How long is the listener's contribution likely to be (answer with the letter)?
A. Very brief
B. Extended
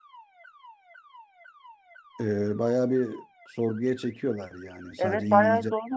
B